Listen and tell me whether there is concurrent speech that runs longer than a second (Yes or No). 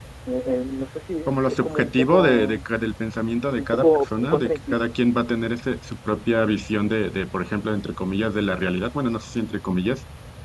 Yes